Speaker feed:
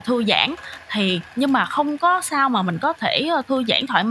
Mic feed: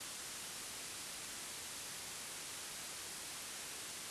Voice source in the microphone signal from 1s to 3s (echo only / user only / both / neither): neither